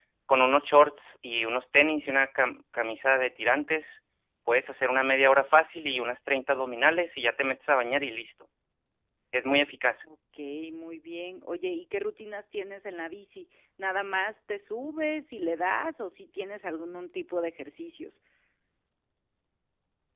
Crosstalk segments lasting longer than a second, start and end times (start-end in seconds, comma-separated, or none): none